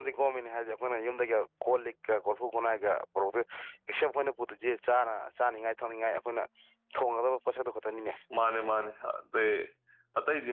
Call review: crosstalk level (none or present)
none